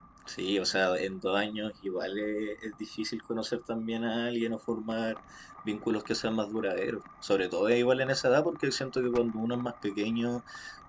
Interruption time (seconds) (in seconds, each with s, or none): none